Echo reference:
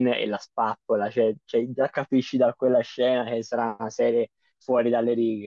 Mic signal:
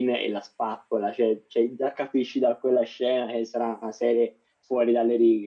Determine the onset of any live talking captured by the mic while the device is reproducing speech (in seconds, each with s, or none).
none